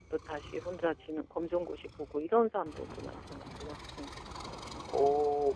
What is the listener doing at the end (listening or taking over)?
taking over